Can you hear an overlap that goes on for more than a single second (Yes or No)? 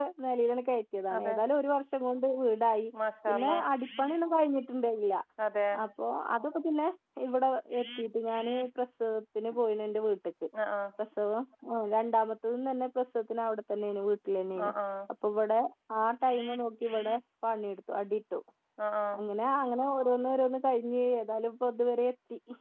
No